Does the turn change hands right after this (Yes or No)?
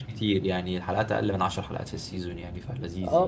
Yes